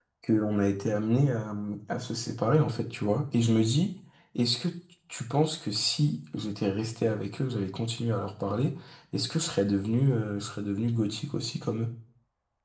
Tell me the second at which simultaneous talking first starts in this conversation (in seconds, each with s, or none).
none